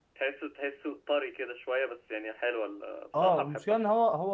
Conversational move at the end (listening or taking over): taking over